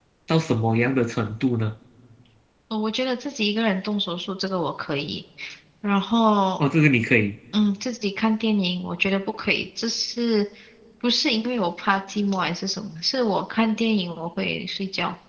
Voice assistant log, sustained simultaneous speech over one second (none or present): none